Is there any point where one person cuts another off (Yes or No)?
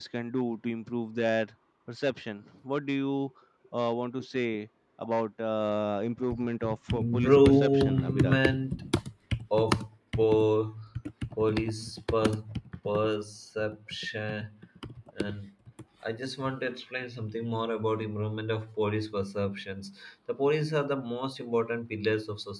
Yes